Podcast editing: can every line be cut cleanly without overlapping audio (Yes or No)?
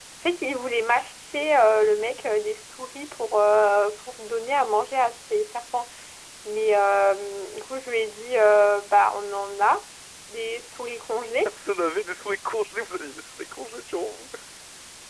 Yes